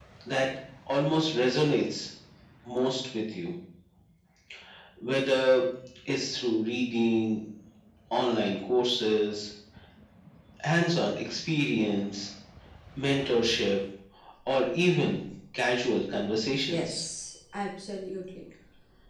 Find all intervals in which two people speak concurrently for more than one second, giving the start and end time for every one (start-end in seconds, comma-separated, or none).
none